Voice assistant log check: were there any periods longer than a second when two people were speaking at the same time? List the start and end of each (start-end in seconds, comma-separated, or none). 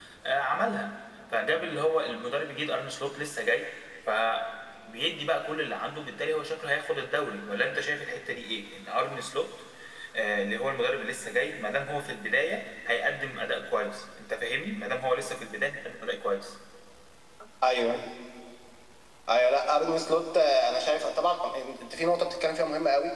none